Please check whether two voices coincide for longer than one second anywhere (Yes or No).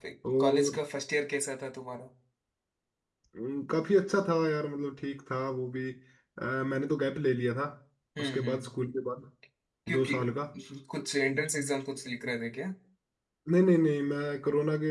No